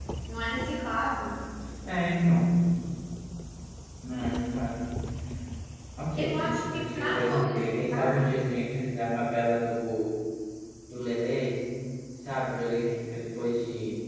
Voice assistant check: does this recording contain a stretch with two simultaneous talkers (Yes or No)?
Yes